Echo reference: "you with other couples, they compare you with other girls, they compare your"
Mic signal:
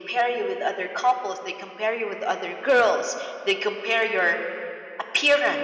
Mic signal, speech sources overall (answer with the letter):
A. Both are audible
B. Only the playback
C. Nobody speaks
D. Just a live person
B